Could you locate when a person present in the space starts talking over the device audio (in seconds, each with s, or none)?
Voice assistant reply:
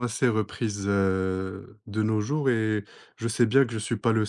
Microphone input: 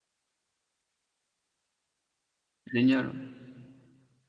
2.7 s